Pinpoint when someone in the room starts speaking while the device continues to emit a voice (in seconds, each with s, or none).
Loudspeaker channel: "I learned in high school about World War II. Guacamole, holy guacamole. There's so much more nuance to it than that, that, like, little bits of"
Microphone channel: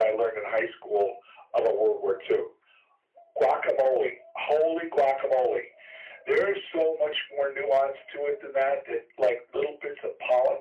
none